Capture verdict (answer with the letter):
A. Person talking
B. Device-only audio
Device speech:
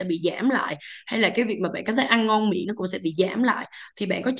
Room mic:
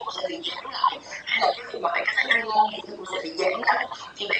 B